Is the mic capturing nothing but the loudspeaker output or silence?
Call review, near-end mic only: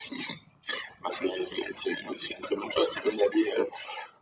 Yes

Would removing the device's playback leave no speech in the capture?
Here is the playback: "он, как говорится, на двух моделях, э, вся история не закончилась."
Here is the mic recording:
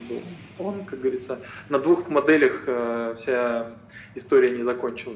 Yes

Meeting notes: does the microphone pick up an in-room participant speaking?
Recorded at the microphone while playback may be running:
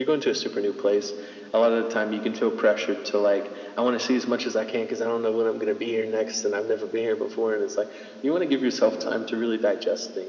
No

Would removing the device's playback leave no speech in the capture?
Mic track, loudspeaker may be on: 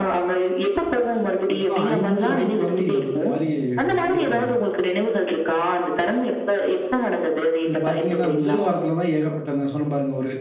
No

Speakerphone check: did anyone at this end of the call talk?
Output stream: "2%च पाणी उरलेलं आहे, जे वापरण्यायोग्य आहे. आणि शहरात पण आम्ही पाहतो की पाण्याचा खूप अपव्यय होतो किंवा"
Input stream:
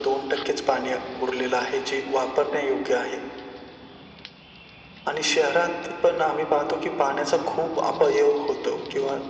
No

